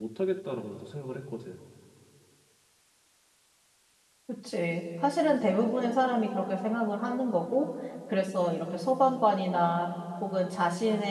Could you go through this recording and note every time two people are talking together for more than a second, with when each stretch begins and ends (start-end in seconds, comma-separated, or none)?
none